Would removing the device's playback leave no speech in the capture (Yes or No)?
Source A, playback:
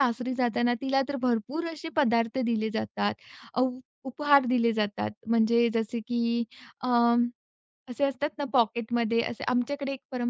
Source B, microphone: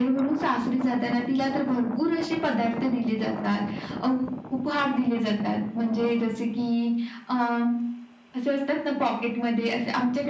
Yes